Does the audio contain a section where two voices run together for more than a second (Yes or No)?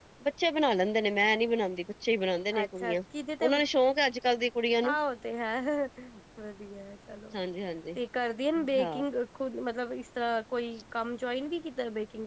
No